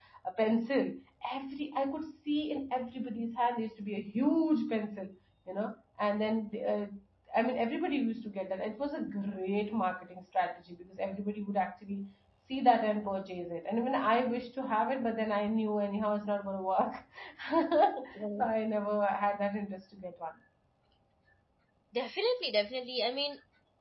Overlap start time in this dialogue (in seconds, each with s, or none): none